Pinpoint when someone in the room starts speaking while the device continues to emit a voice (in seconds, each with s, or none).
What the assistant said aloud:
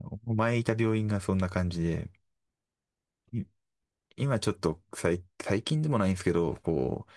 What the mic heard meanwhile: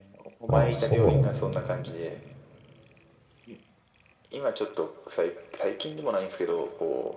0.5 s